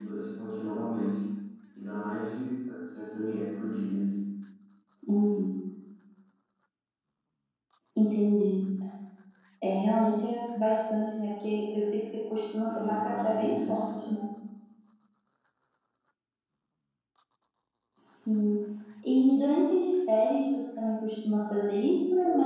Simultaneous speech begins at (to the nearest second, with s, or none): 13 s